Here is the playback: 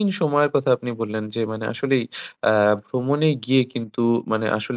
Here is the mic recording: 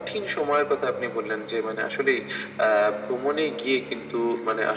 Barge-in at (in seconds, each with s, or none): none